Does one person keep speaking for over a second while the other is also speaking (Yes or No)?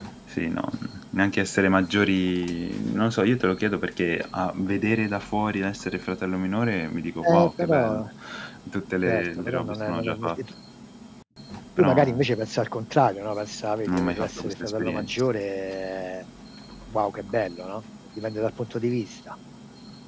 Yes